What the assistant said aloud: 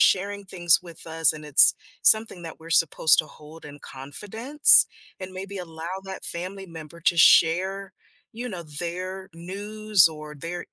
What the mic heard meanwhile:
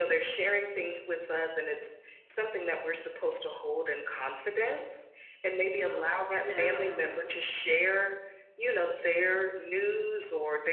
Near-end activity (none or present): present